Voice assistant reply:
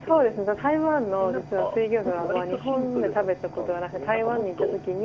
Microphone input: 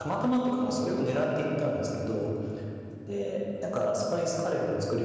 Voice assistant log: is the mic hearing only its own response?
No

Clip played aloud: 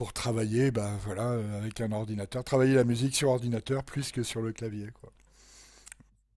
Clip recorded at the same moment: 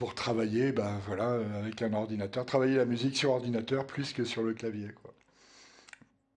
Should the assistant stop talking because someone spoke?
No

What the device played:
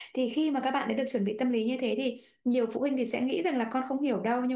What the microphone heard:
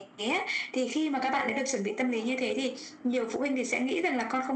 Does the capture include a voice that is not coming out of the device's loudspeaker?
Yes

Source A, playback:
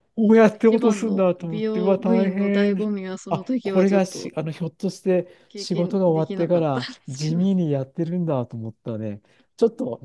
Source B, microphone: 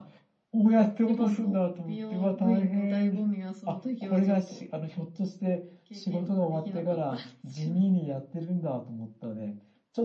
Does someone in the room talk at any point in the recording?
No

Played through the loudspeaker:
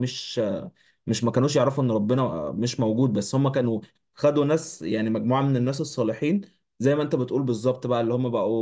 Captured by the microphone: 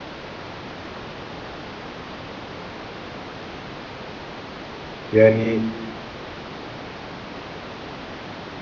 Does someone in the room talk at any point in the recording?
Yes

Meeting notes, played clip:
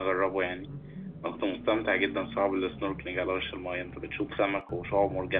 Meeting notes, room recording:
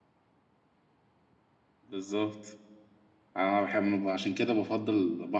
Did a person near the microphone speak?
Yes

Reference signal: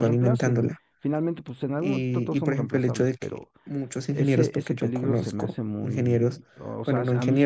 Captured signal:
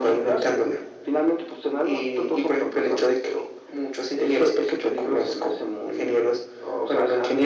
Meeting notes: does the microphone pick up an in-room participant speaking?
No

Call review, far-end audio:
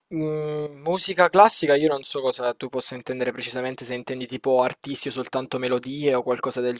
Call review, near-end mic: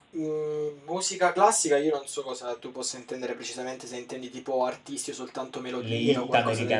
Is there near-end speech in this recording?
Yes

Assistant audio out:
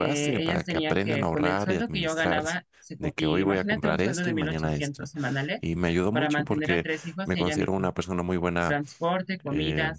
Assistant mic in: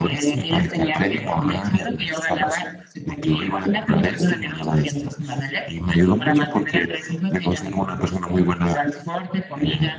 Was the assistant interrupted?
No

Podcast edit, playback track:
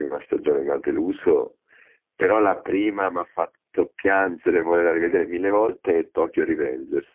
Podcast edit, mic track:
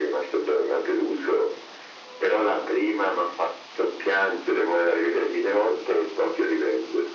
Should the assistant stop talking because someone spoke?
No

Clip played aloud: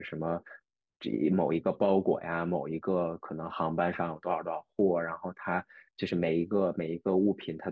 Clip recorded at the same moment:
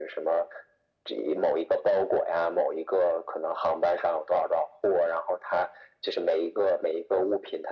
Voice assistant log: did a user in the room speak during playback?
No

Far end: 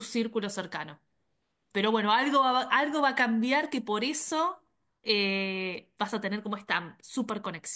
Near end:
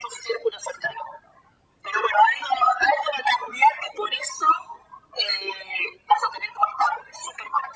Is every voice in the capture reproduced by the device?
Yes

